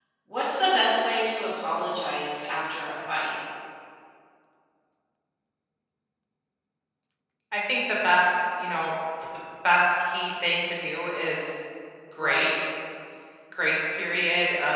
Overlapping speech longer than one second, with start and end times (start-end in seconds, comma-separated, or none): none